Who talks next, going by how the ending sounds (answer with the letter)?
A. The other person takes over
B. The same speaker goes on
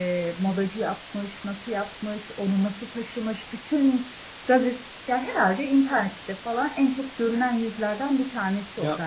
A